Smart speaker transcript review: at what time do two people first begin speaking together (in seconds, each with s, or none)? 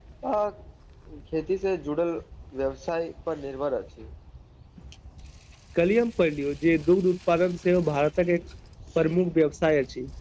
none